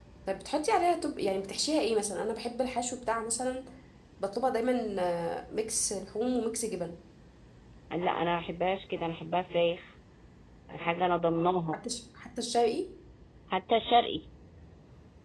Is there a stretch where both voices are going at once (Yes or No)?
No